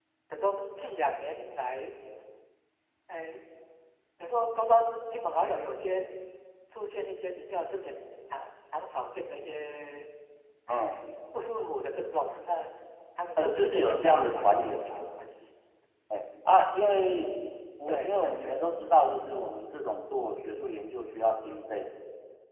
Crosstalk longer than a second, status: present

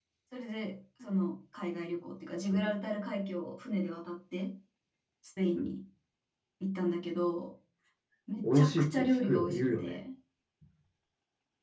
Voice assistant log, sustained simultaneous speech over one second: present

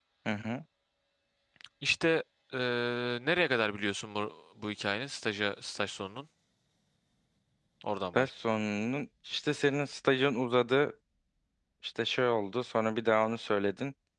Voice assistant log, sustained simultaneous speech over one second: none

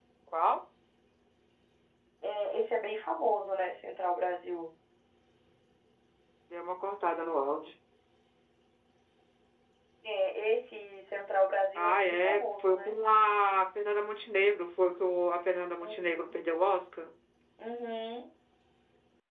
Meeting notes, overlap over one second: present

